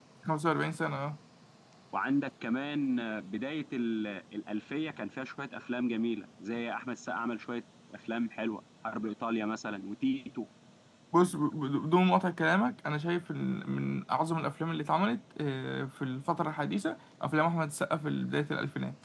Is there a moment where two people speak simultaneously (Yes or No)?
No